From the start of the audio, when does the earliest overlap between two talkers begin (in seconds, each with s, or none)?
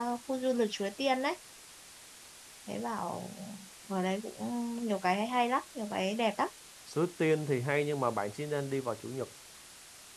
none